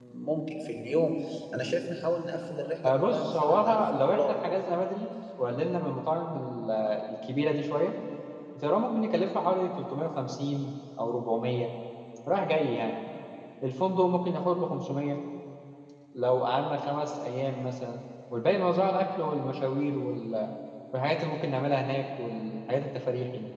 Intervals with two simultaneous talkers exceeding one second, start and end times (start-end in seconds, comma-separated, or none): 2.8-4.3